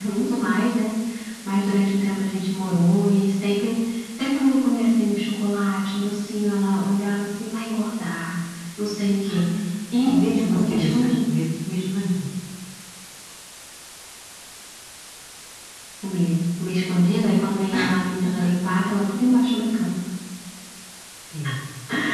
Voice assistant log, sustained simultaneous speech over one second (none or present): present